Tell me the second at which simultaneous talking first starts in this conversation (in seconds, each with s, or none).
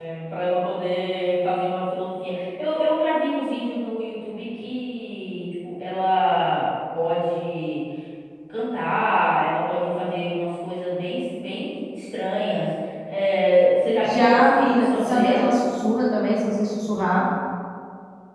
14.0 s